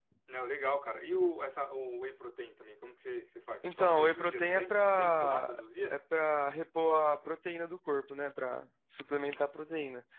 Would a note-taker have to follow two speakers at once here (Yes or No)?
Yes